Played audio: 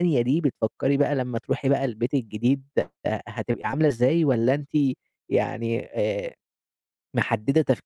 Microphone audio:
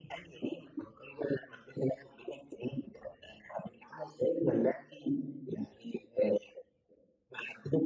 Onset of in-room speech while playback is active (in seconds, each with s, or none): none